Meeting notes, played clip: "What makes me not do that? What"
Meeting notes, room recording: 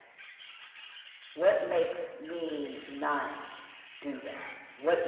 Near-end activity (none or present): none